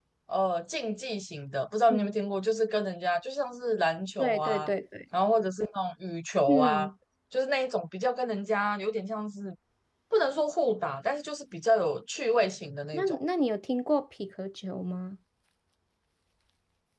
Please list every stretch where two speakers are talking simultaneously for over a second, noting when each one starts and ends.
none

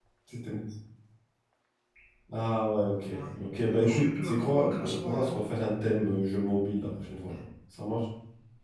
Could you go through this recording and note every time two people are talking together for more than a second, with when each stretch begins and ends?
3.8-5.3

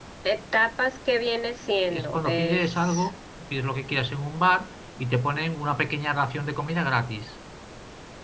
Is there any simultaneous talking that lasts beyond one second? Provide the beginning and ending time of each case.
1.9-3.1

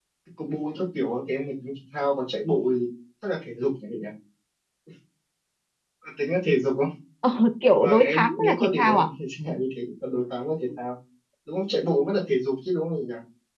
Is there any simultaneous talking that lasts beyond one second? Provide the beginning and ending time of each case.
7.8-9.1

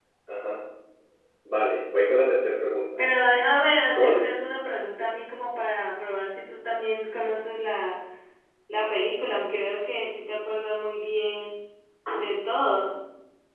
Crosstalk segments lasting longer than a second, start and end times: none

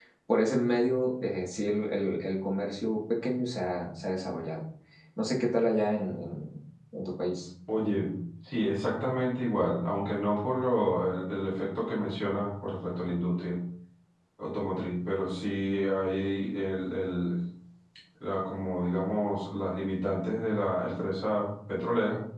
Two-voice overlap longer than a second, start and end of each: none

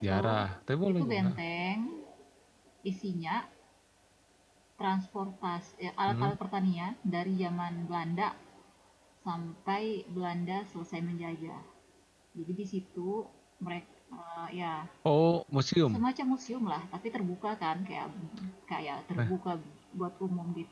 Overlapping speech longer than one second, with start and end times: none

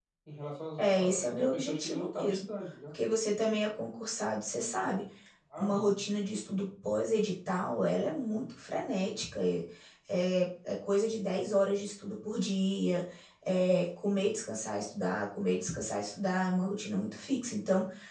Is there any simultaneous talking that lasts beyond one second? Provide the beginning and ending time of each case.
0.8-2.4

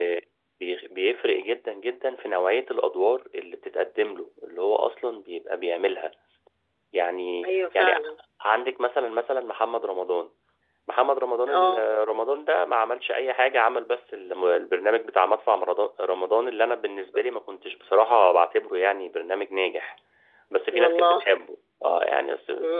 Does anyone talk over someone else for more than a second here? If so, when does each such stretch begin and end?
none

